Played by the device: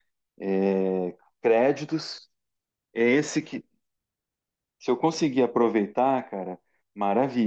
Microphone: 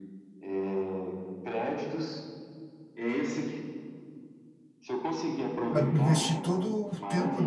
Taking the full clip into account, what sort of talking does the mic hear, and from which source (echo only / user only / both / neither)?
both